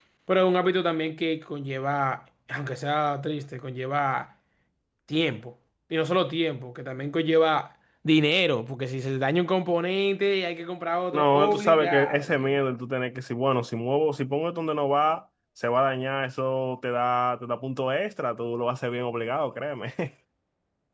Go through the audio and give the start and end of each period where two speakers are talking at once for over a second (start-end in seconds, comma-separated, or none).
11.1-12.6